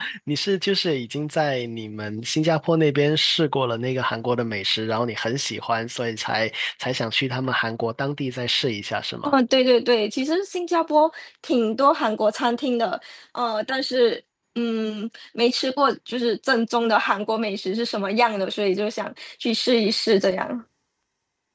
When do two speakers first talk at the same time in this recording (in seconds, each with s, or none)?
none